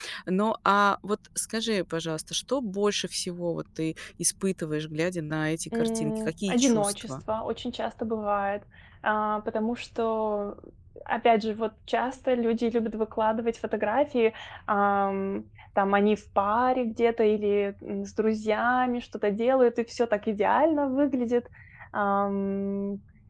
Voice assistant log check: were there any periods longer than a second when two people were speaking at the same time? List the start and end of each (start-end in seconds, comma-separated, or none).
5.7-7.1